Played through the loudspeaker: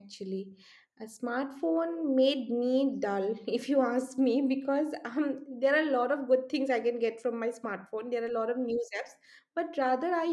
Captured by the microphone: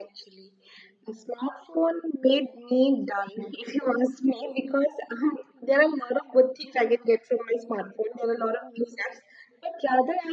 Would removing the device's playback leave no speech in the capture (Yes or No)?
Yes